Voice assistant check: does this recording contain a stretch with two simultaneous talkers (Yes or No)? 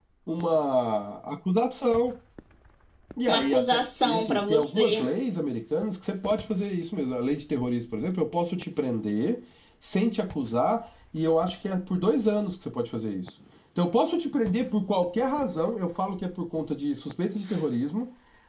Yes